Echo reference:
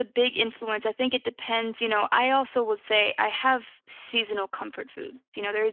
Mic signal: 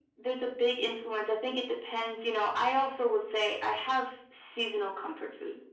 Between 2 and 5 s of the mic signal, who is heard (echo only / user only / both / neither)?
echo only